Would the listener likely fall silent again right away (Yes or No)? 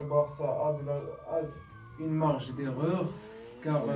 Yes